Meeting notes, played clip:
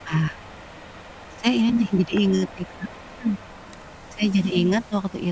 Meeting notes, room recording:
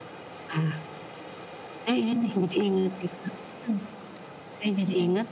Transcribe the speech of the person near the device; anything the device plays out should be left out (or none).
none